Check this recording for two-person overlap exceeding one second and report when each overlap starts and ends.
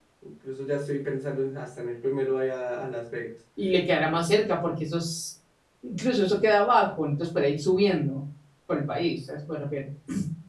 none

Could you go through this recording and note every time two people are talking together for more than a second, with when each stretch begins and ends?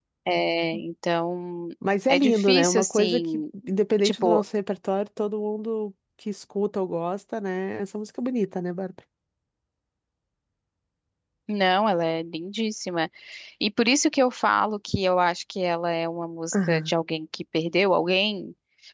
2.1-3.4

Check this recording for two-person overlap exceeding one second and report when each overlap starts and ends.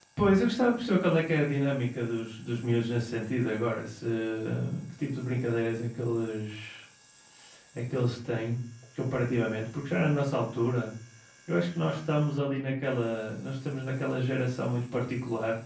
none

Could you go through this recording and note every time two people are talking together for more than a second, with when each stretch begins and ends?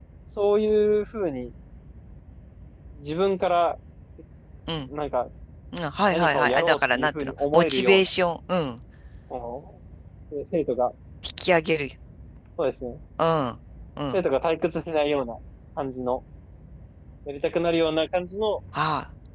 6.1-8.0

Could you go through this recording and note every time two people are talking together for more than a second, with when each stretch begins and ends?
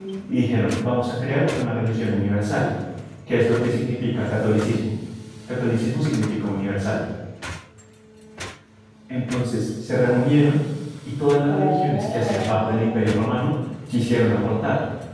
11.4-13.1

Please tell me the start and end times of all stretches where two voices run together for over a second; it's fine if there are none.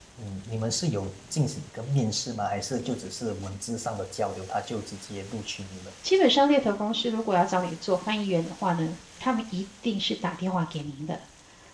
none

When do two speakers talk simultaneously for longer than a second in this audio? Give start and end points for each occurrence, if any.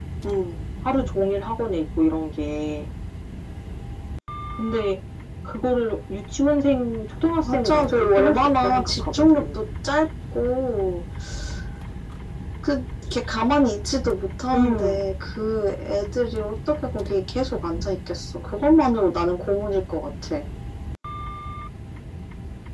7.5-9.6

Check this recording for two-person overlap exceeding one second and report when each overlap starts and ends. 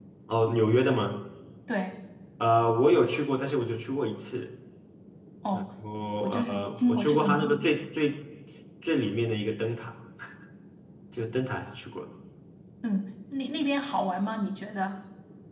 6.2-7.7

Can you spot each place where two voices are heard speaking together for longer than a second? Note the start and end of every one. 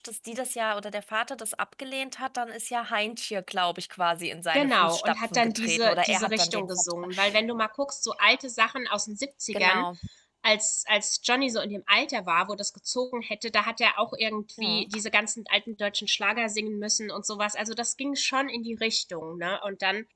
4.5-7.1

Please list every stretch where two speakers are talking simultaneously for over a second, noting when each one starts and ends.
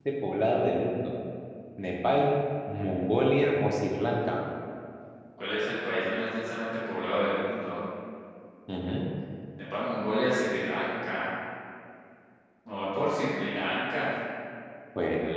none

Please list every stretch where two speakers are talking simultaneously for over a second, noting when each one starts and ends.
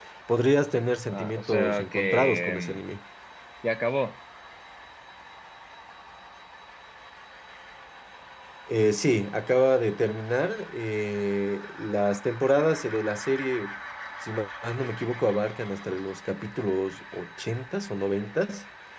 1.1-2.8

